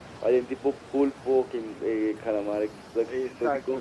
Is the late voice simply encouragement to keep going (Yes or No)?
No